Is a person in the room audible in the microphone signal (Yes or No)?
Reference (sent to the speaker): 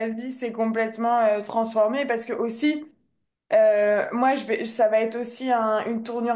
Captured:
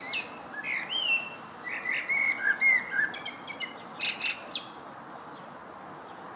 No